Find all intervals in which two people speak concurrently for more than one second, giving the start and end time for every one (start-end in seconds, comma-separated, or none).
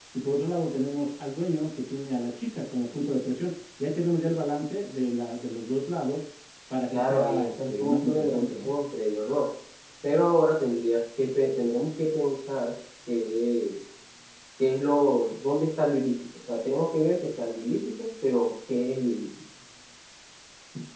6.9-8.7